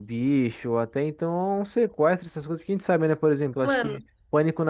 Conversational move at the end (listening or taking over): listening